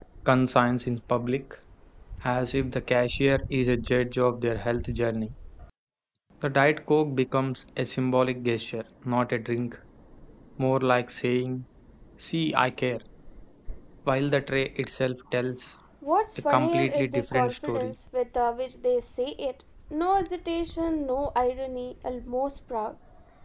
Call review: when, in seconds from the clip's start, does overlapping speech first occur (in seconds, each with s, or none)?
16.5 s